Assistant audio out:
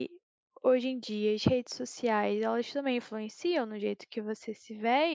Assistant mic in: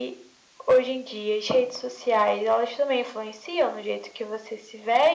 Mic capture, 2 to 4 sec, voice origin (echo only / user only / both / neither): echo only